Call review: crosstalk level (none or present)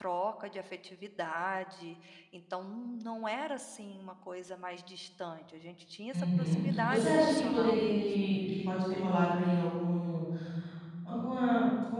present